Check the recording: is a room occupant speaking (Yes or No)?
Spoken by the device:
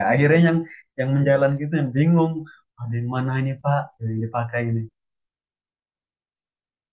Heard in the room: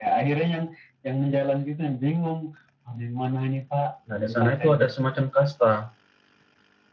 Yes